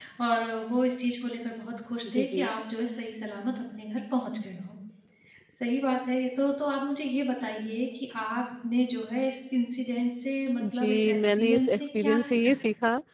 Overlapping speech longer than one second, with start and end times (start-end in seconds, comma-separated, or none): 10.6-12.6